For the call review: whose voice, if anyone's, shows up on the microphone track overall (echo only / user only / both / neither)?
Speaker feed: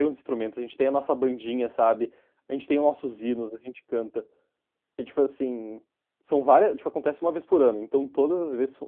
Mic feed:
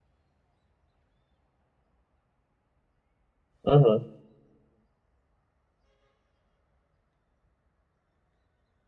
user only